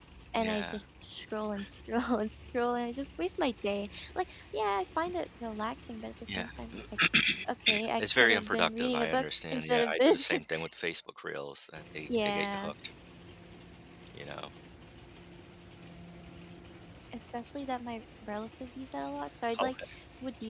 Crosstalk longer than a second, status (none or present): present